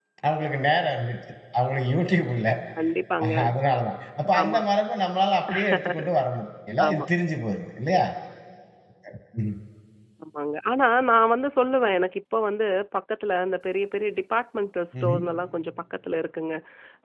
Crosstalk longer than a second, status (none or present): none